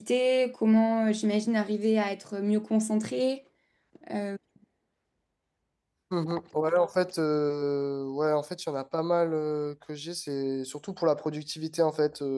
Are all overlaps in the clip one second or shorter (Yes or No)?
Yes